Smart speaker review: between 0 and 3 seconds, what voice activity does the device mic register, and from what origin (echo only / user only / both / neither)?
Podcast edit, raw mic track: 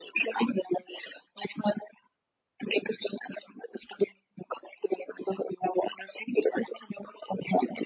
echo only